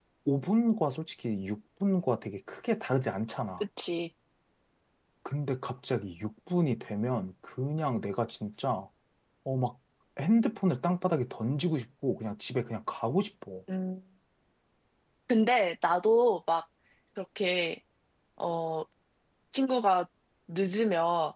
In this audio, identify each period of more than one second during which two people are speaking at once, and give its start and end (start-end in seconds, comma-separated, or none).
none